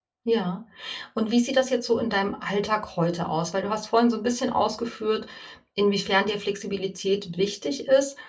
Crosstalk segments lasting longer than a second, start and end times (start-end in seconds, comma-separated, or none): none